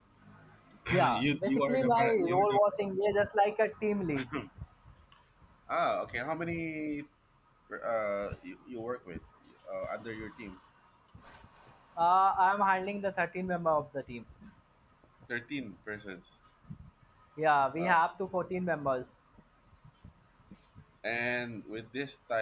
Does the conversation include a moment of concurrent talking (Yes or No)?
Yes